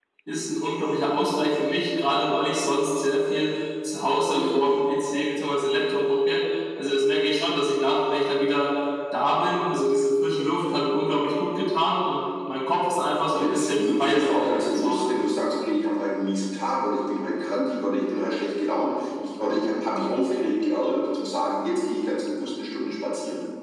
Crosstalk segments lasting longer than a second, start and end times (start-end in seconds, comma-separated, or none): 13.3-15.3